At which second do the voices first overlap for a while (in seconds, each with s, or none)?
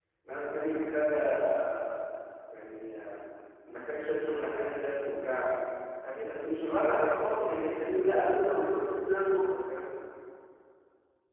6.9 s